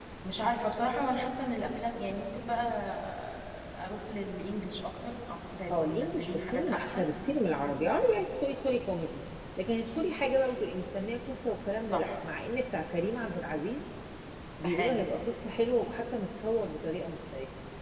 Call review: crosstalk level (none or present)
present